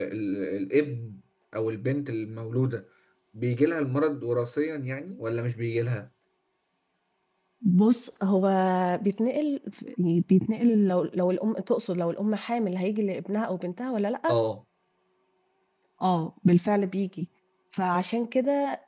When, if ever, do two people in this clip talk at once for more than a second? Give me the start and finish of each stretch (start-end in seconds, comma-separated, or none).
none